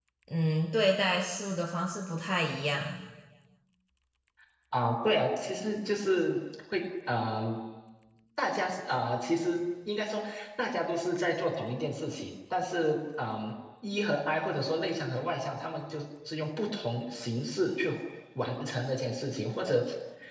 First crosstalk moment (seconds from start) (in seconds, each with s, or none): none